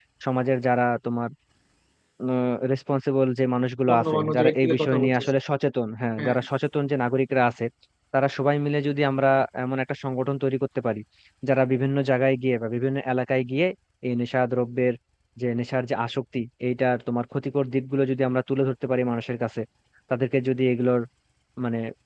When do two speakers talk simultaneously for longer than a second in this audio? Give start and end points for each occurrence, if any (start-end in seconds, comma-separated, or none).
3.9-5.3